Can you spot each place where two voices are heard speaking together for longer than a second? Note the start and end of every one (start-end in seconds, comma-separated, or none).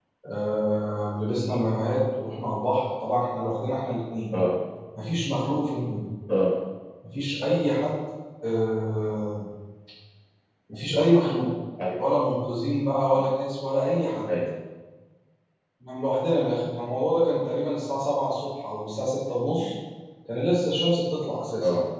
none